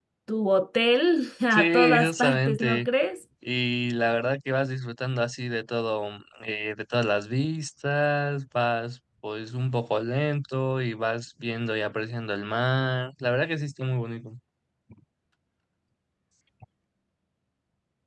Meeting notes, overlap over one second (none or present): present